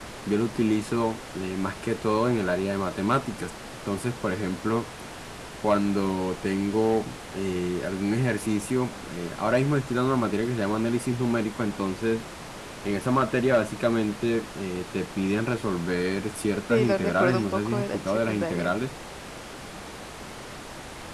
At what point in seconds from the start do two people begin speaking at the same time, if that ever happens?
16.7 s

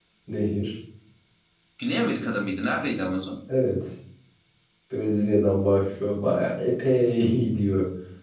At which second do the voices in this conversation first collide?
none

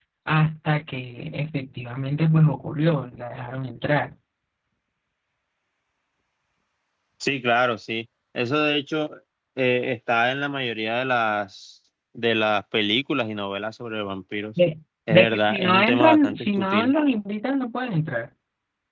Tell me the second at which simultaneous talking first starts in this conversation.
15.1 s

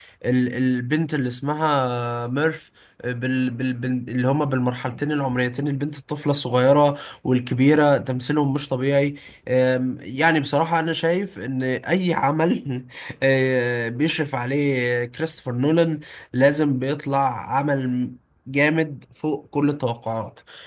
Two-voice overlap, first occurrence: none

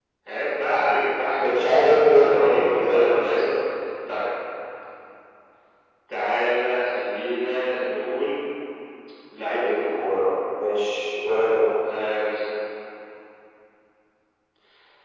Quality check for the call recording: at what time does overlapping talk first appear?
1.4 s

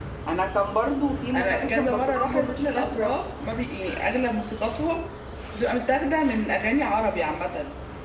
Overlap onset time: 1.3 s

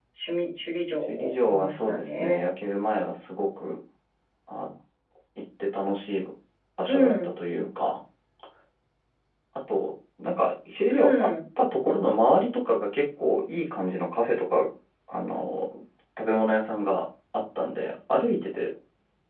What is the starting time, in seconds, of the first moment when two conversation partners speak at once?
1.1 s

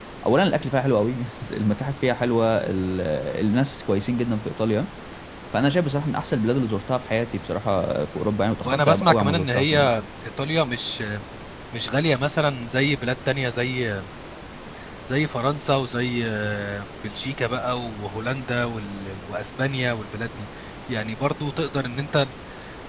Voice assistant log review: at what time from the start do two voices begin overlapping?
8.6 s

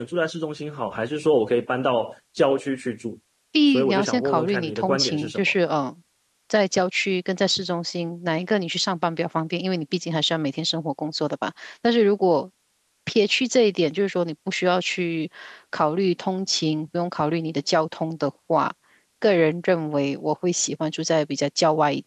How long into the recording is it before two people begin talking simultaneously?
3.7 s

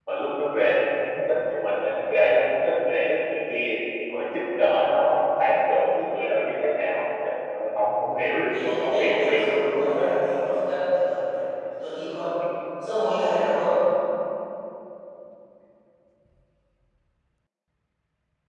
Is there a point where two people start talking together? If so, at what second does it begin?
8.5 s

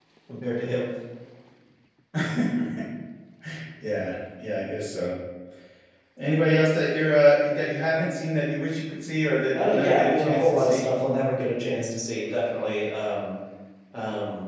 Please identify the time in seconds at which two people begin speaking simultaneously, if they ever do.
9.5 s

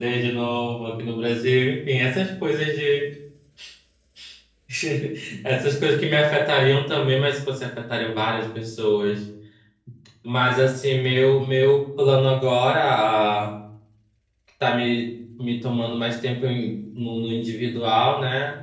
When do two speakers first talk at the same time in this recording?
none

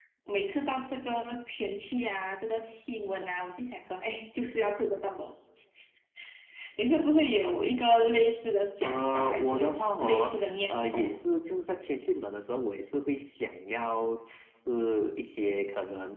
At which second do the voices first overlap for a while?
8.8 s

